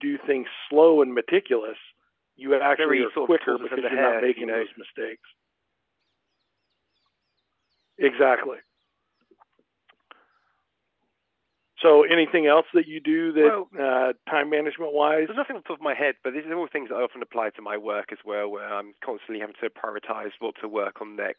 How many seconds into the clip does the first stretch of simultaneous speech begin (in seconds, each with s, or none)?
2.7 s